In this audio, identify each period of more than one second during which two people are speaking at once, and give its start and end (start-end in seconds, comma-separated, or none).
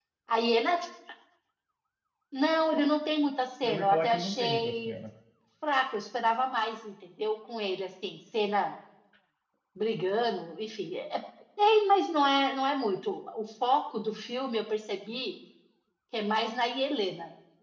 3.6-4.9